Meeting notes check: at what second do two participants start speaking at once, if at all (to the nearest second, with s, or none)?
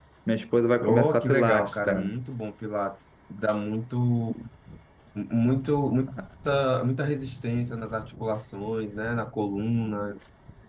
1 s